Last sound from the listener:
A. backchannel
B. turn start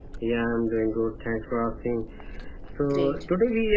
A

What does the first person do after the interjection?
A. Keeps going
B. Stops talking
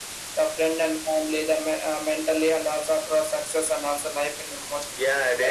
B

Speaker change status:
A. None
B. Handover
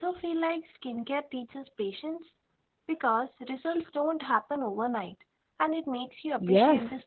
B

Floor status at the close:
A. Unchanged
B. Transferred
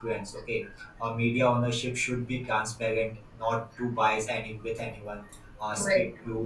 A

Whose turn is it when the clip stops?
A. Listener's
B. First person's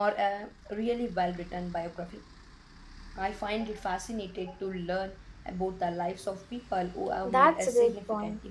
A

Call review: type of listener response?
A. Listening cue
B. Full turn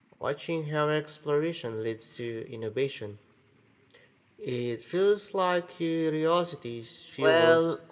B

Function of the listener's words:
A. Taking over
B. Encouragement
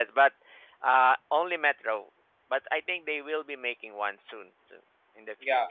A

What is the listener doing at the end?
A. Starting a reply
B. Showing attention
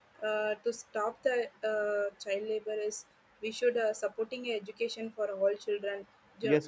A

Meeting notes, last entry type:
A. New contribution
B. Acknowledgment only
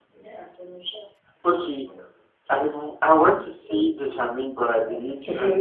A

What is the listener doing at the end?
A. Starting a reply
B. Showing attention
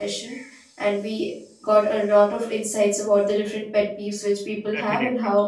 B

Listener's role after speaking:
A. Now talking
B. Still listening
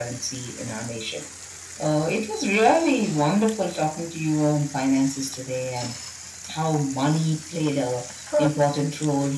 B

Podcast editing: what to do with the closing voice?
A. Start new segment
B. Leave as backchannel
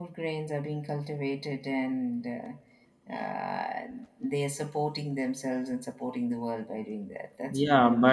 A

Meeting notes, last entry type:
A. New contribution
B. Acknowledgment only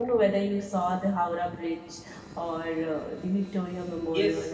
A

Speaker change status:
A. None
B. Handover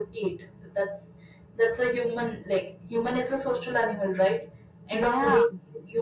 A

